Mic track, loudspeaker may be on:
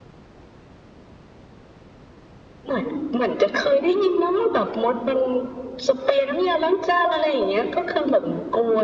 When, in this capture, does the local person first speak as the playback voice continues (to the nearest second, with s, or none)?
none